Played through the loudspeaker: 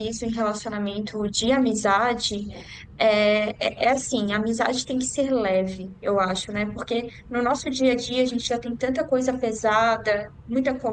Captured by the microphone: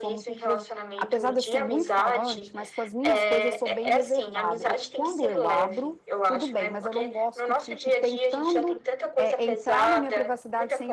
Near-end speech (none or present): present